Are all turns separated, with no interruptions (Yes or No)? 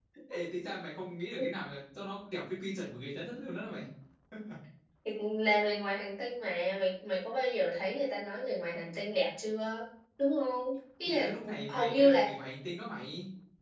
No